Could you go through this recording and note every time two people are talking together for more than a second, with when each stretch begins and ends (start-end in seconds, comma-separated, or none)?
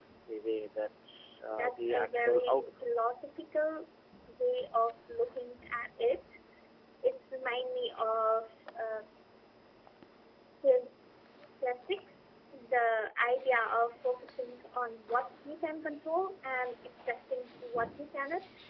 1.6-2.9